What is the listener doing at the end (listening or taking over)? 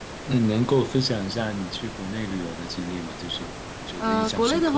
taking over